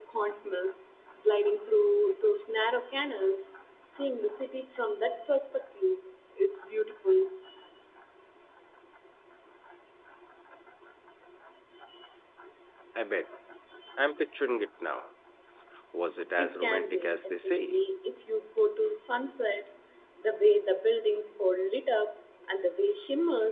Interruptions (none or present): present